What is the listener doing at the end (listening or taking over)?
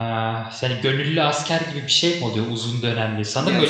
listening